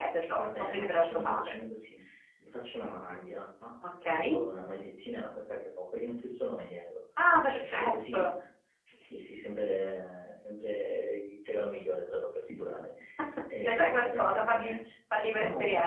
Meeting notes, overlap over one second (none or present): present